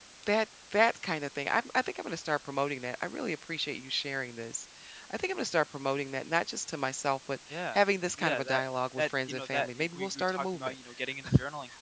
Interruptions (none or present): present